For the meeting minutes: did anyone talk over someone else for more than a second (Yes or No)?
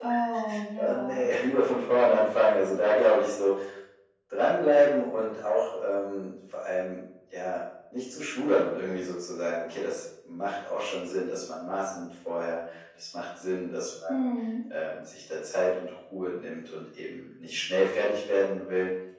No